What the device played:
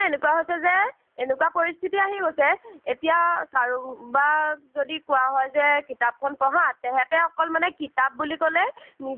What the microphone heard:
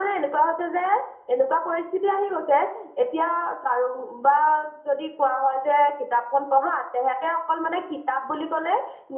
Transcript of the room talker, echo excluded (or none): none